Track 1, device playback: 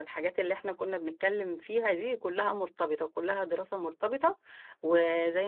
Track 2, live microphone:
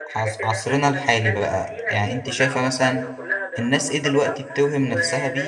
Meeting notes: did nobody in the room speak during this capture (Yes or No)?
No